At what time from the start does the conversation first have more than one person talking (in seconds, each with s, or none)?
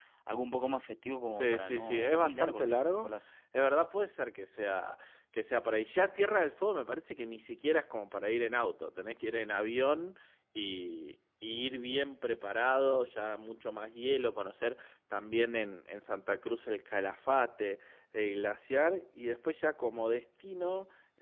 1.3 s